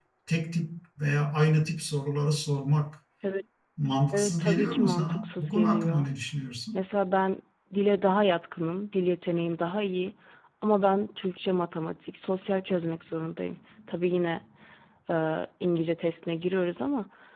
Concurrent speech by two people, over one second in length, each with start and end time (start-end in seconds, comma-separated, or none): 4.1-6.1